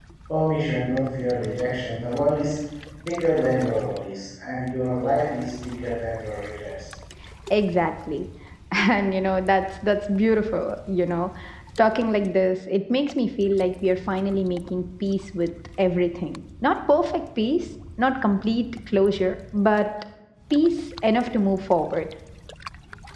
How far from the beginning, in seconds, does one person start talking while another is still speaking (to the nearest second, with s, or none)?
none